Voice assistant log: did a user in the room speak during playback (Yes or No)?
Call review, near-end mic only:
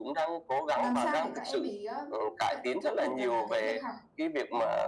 Yes